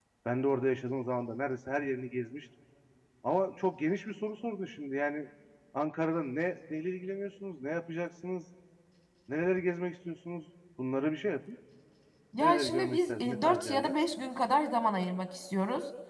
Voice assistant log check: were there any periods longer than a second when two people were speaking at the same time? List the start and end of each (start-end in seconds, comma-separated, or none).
12.4-13.9